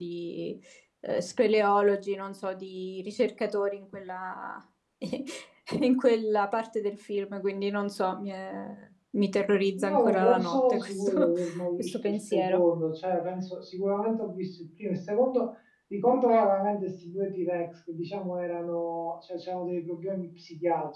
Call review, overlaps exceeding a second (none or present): present